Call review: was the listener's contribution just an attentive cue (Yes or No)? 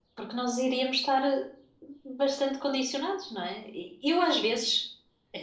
Yes